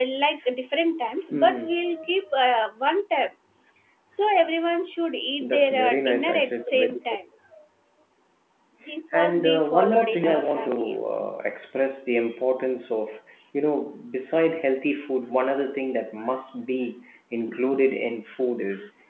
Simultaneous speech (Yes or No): Yes